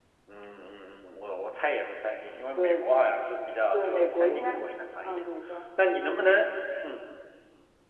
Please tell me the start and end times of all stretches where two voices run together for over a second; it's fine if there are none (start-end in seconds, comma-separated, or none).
3.7-5.2